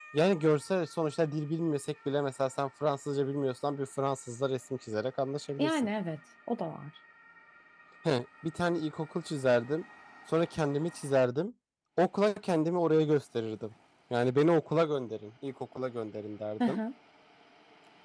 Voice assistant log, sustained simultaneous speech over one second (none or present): none